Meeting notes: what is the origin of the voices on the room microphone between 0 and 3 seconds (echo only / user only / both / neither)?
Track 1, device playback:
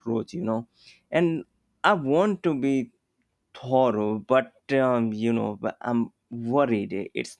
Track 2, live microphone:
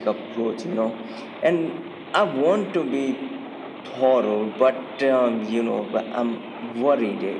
echo only